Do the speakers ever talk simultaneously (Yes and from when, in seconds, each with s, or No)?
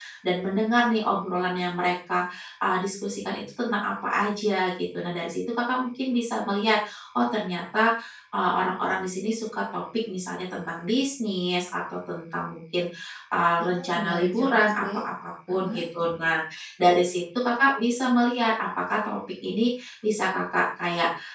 Yes, from 13.6 s